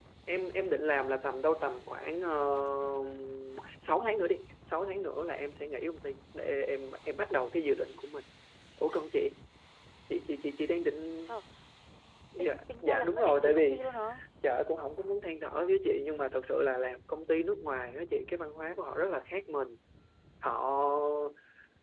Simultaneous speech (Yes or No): Yes